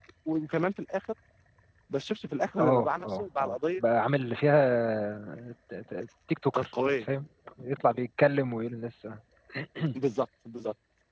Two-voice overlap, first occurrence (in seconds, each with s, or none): 2.6 s